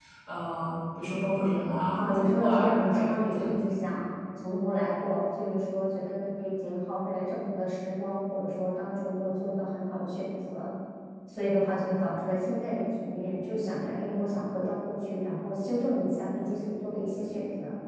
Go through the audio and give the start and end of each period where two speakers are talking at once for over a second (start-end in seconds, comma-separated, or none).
2.0-3.5